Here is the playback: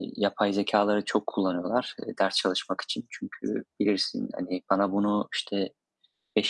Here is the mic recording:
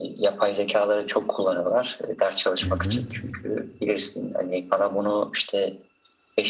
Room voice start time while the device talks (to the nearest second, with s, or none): 3 s